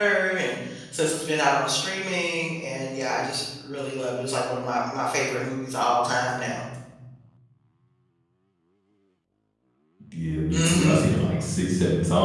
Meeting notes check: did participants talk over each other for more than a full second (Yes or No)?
No